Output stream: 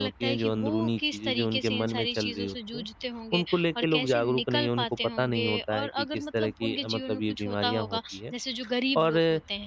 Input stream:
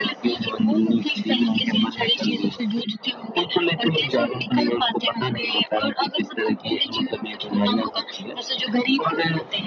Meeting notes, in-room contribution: none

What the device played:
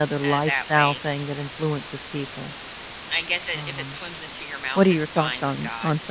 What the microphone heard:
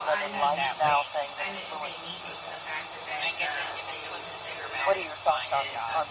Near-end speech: present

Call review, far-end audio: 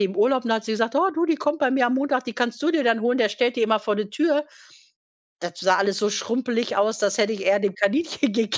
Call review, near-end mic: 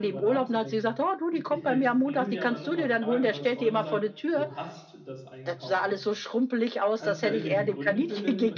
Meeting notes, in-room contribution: present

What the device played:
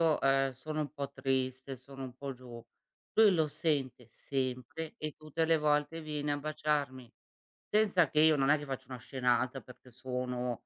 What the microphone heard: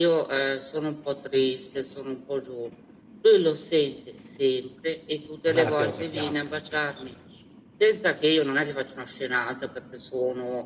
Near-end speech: present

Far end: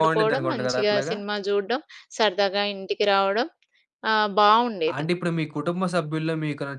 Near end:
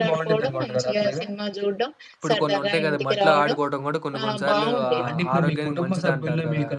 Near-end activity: present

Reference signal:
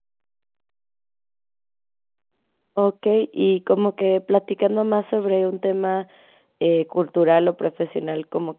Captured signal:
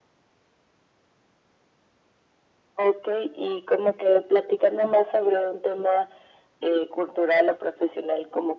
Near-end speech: none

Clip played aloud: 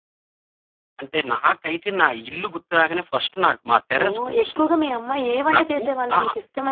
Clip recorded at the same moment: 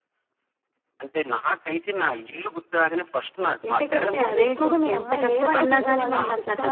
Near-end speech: present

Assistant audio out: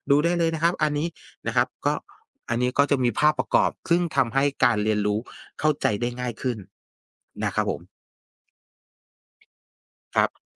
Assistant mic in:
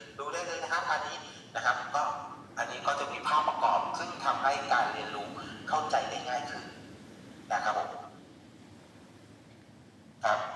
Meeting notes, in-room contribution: none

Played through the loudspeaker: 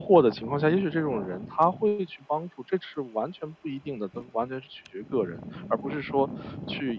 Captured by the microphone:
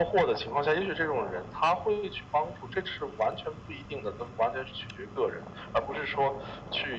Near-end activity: none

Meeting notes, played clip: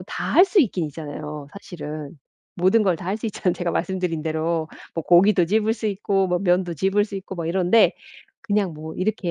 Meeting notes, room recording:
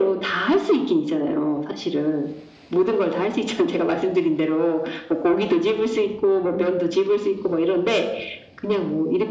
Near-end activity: none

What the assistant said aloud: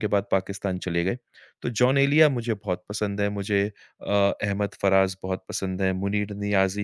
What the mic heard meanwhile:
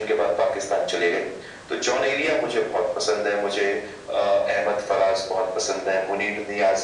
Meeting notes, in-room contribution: none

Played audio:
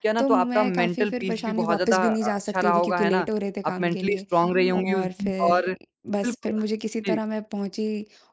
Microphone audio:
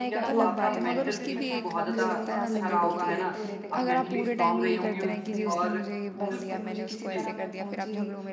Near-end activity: present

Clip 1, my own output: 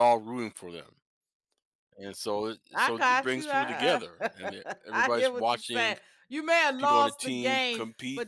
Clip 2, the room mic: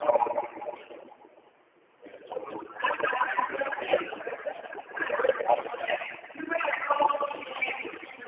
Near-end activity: none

